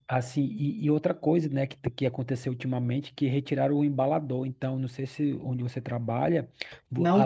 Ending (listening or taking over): listening